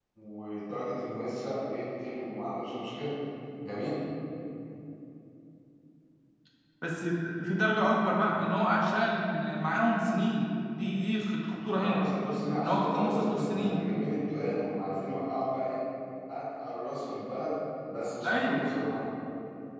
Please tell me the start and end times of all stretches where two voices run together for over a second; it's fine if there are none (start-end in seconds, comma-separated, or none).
12.6-13.8